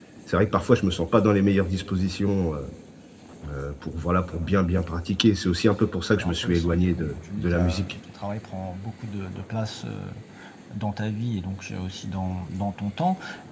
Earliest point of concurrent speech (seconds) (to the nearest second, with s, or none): 6 s